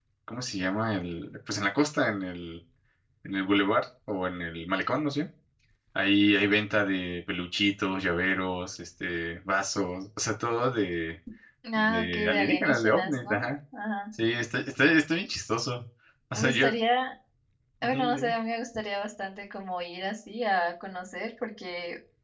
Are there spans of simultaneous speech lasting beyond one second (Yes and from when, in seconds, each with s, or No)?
Yes, from 11.8 s